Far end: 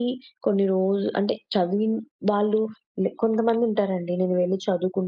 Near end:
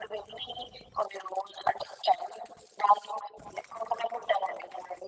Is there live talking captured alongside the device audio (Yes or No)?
No